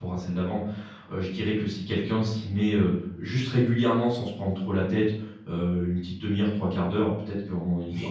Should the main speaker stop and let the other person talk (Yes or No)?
No